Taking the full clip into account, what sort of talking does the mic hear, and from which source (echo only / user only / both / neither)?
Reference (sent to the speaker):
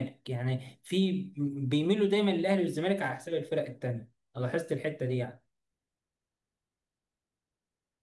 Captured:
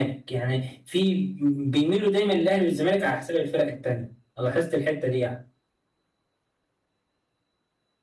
echo only